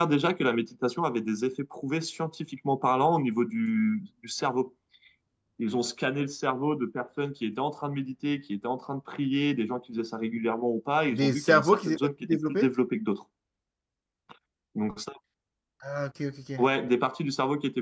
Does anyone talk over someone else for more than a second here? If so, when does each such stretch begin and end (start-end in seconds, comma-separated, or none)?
11.1-12.7